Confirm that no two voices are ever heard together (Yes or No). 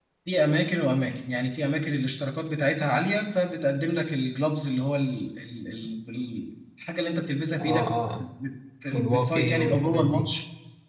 No